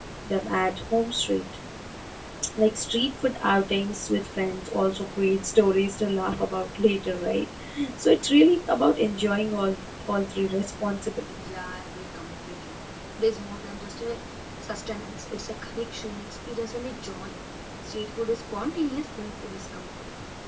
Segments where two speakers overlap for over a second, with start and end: none

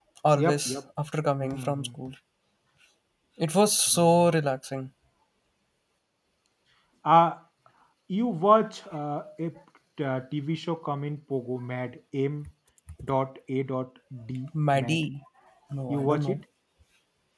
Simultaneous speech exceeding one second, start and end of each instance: none

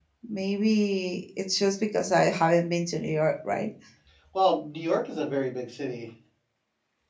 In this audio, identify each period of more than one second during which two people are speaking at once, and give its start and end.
none

